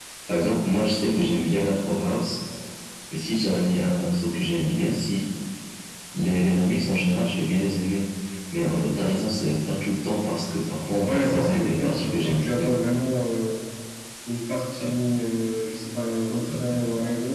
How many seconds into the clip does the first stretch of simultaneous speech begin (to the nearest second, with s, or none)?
11 s